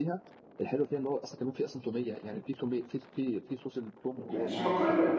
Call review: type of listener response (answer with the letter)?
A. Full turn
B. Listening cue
A